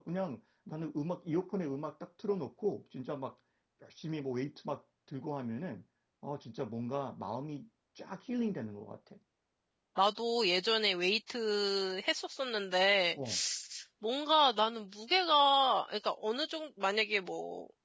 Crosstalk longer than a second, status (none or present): none